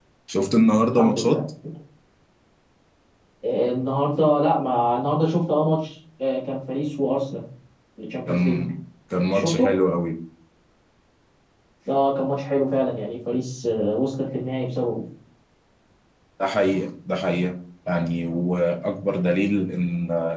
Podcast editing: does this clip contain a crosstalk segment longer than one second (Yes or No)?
No